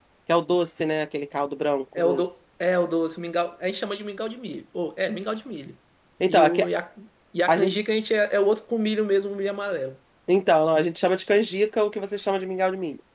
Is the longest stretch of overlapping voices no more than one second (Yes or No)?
Yes